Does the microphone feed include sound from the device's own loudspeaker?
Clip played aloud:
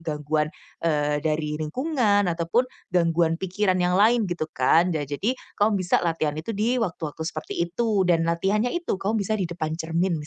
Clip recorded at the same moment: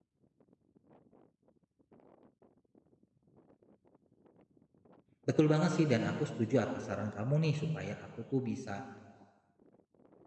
No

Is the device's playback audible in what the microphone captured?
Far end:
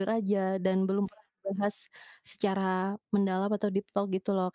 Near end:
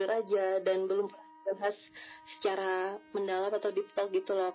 Yes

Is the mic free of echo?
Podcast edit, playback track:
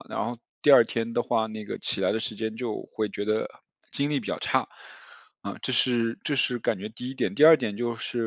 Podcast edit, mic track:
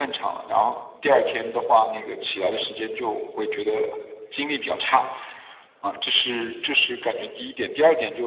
No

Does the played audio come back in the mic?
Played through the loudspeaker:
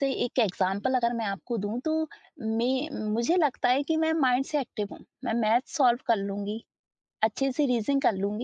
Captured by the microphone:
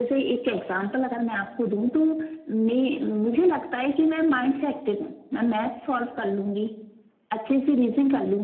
Yes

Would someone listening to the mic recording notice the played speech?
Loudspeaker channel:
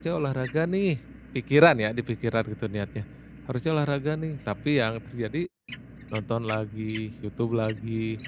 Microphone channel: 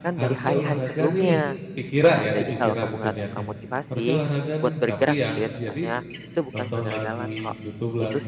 Yes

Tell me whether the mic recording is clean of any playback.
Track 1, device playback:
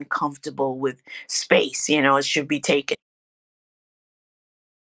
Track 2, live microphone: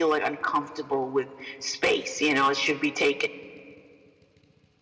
No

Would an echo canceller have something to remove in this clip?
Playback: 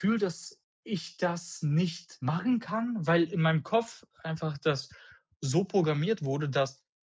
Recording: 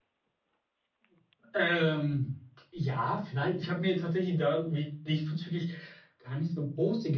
No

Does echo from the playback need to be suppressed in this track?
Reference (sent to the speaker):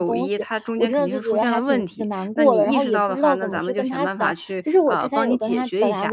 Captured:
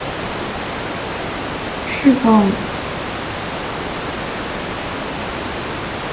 No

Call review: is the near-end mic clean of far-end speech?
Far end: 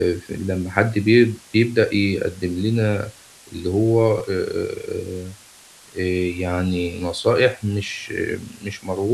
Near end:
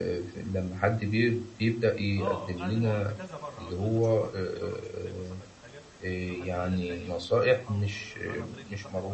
No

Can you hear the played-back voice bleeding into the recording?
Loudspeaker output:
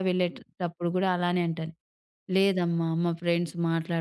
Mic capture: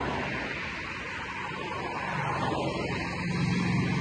No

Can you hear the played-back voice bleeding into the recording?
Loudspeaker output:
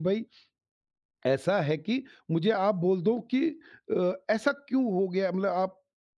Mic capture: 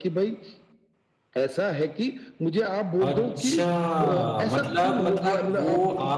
Yes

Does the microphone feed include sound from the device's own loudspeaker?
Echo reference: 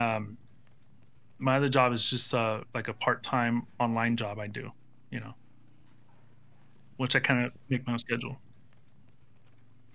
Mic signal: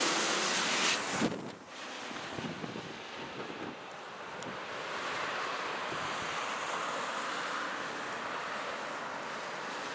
No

